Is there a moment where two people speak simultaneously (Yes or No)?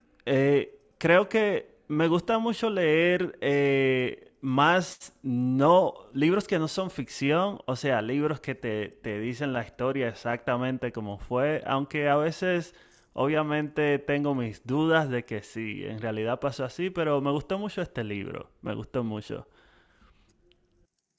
No